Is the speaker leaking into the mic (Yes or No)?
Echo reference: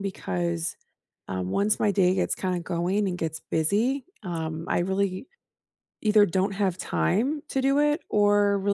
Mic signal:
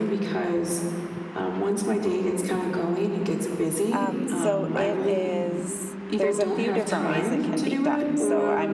Yes